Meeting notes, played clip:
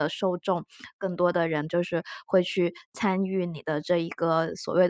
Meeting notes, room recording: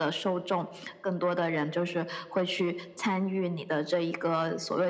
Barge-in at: none

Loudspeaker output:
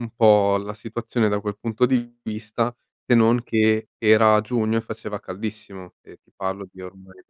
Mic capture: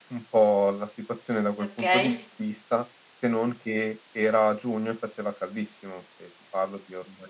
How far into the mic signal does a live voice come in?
1.6 s

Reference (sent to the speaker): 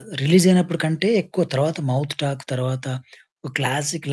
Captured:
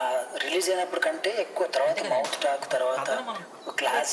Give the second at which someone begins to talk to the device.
1.9 s

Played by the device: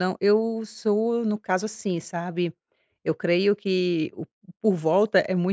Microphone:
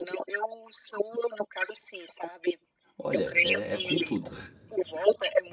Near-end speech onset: 3.0 s

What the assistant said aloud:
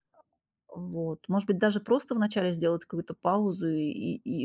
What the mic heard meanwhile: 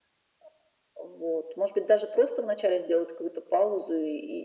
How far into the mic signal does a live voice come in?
none

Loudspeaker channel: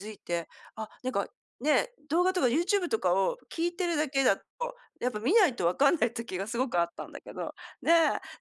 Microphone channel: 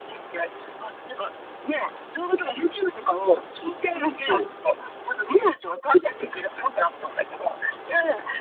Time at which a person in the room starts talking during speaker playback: 3.9 s

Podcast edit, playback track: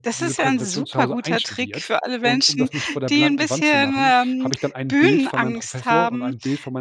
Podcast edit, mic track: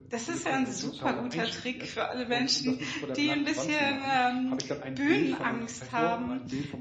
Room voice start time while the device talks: none

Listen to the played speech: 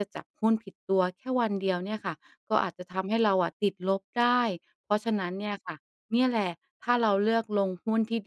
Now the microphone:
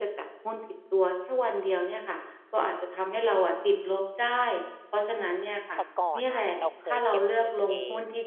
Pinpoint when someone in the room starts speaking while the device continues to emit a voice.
5.7 s

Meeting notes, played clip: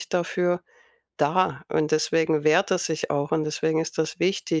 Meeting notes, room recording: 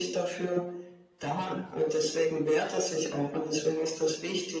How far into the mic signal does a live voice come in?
none

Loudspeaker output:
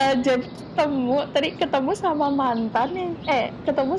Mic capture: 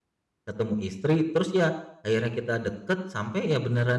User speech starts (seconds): 0.5 s

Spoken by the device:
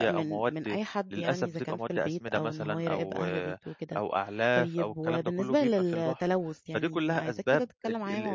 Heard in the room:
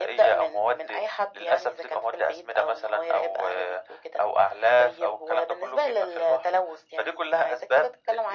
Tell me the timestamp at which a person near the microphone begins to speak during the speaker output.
none

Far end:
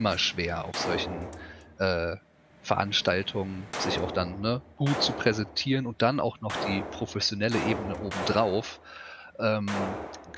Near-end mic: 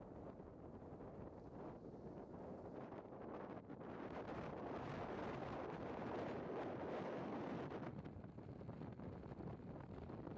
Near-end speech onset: none

